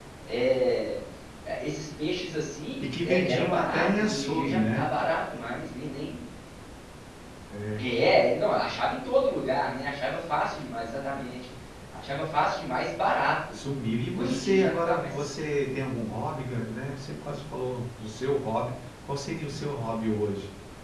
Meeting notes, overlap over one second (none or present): present